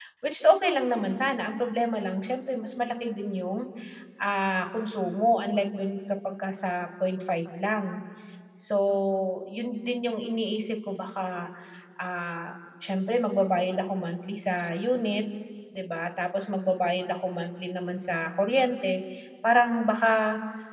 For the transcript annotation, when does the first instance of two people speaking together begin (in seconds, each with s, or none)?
none